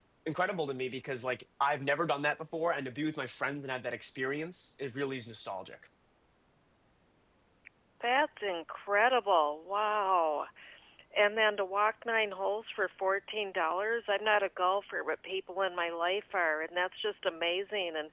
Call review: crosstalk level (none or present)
none